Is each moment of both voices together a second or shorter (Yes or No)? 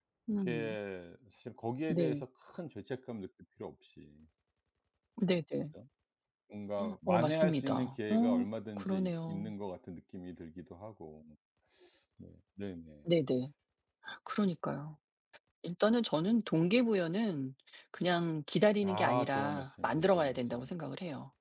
No